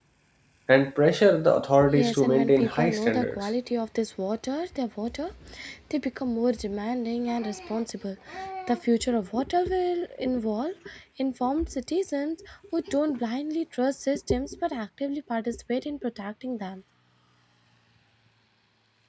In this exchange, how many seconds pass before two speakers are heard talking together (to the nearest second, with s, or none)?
2 s